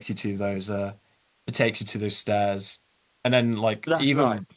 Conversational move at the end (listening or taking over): listening